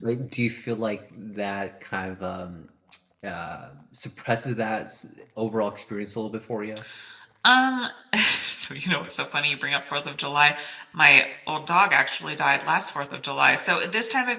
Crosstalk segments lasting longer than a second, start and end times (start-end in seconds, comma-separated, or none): none